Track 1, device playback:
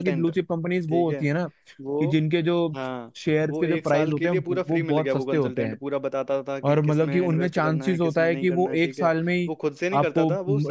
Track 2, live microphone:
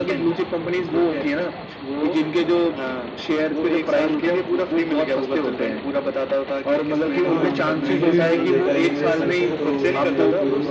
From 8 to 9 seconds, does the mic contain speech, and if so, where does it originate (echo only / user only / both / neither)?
both